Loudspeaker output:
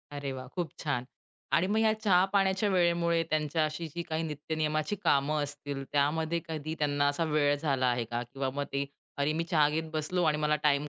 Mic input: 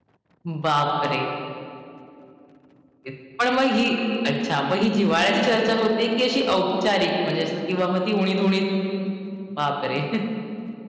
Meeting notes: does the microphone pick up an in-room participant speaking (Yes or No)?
Yes